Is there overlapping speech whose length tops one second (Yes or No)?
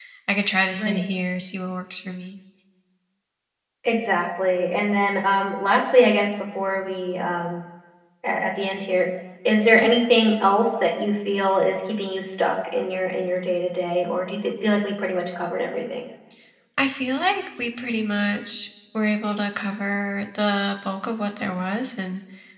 No